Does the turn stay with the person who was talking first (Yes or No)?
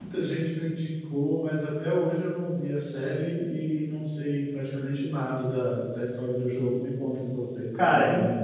No